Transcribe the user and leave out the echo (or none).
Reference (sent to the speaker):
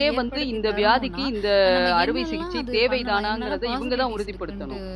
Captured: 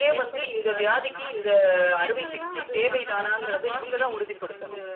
none